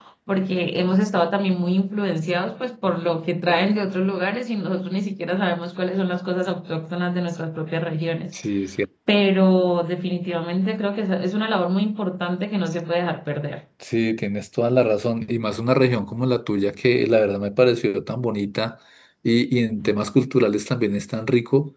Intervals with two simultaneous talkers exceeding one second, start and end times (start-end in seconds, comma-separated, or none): none